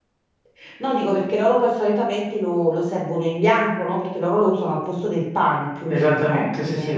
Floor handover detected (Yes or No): Yes